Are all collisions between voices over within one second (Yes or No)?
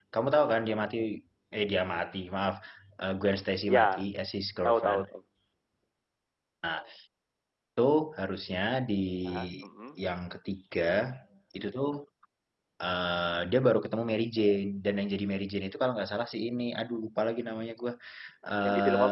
Yes